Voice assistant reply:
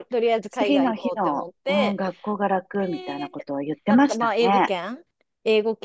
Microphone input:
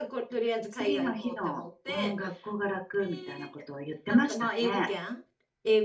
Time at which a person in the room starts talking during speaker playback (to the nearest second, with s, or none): none